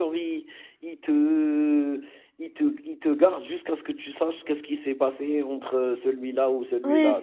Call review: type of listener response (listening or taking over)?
taking over